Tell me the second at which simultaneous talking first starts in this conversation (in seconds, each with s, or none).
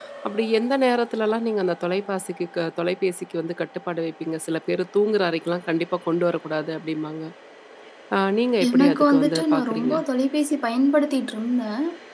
8.7 s